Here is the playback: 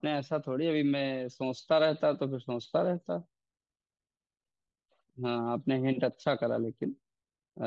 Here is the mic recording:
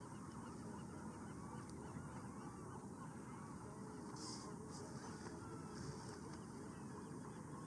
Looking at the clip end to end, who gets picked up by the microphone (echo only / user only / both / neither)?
neither